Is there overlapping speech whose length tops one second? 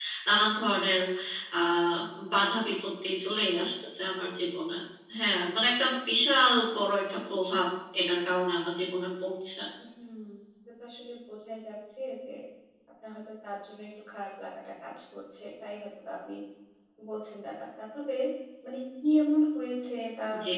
No

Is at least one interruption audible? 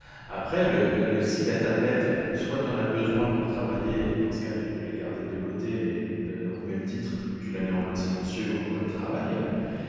No

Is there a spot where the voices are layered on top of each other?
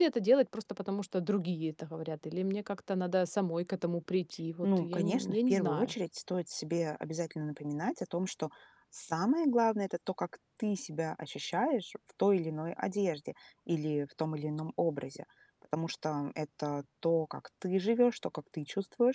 Yes, from 4.6 s

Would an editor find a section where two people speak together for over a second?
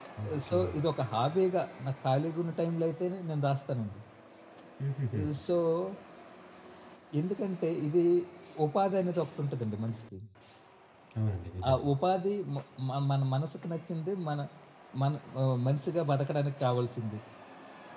No

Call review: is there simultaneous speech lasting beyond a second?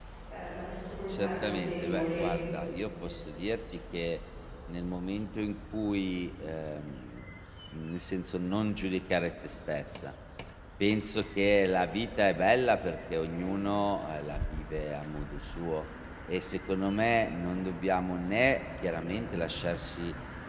Yes, from 1.1 s

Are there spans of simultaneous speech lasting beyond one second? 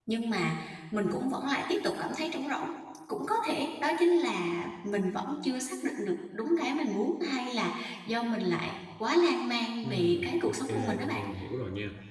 Yes, from 9.8 s

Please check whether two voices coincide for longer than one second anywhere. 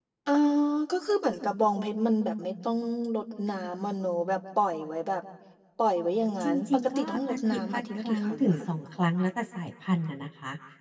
Yes, from 6.4 s

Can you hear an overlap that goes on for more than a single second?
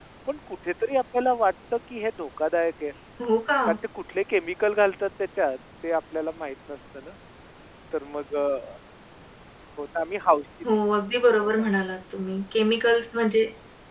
No

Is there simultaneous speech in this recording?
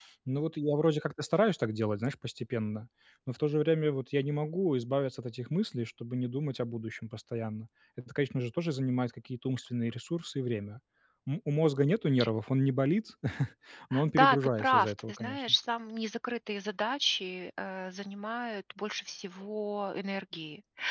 Yes, from 14.2 s

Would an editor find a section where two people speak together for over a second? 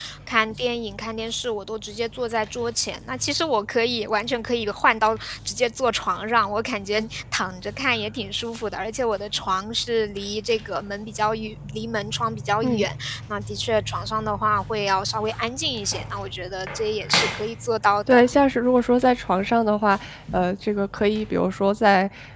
No

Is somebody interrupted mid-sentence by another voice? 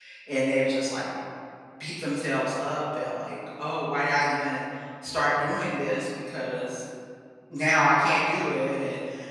No

